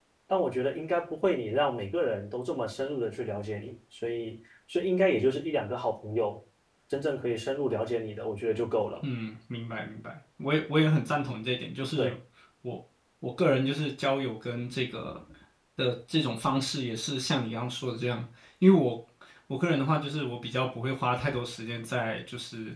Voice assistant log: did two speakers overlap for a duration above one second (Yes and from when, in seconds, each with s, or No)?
No